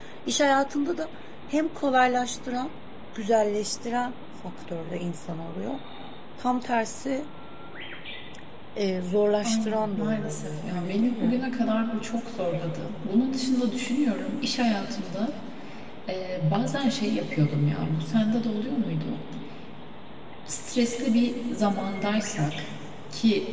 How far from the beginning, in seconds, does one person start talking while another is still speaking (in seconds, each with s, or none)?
9.4 s